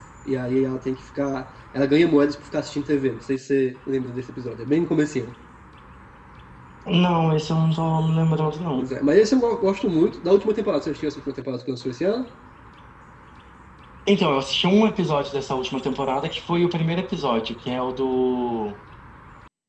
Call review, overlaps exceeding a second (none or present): none